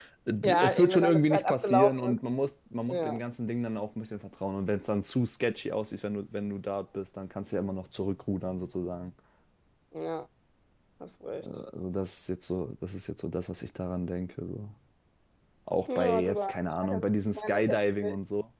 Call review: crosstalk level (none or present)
present